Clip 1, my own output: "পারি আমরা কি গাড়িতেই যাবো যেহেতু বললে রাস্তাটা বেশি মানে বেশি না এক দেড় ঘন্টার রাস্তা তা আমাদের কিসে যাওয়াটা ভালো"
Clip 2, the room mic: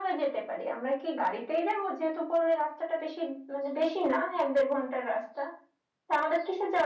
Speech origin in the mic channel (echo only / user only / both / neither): echo only